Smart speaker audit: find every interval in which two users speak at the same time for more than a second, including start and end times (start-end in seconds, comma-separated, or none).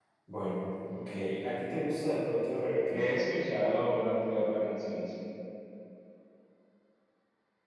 none